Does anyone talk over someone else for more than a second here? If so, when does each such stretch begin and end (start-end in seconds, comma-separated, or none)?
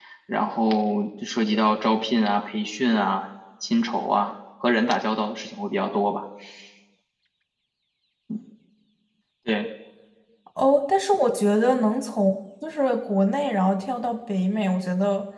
none